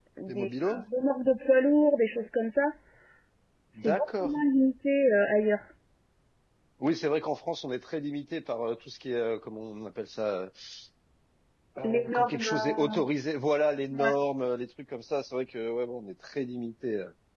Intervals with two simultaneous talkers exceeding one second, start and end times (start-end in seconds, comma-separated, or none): 11.8-13.1